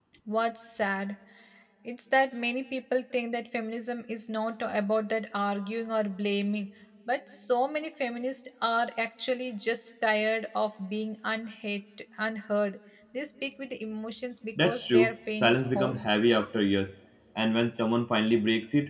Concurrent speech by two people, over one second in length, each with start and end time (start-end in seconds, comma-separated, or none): 14.6-16.1